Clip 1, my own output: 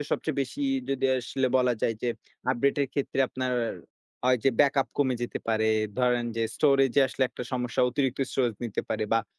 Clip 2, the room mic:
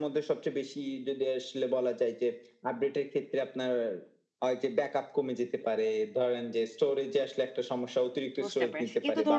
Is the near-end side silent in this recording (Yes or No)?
No